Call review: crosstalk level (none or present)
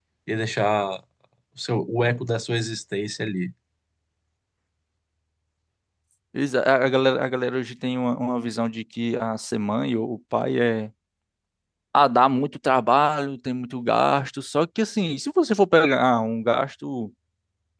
none